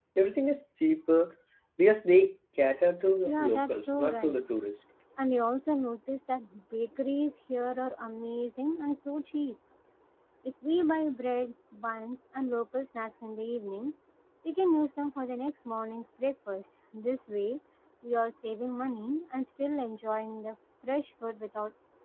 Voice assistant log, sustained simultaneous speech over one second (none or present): present